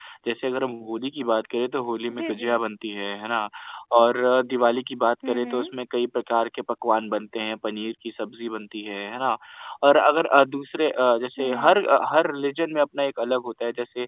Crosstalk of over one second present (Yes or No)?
No